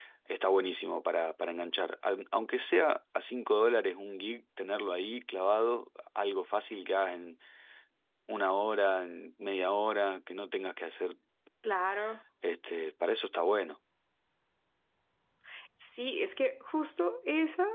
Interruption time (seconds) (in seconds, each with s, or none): none